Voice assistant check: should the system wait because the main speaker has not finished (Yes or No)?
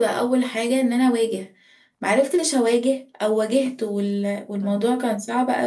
Yes